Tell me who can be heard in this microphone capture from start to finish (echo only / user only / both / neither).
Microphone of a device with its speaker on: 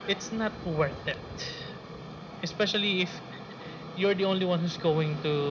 echo only